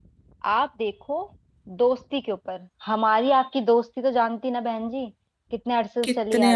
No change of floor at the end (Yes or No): No